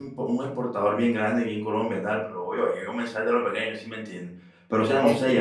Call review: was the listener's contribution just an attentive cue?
Yes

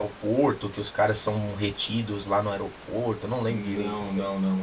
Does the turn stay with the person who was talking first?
No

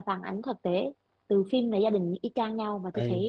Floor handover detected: No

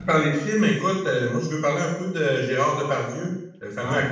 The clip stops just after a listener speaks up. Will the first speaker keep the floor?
Yes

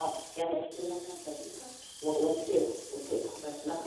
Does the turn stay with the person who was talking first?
No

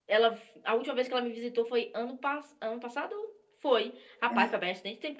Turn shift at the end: No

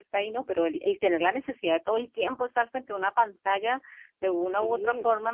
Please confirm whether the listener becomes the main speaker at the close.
No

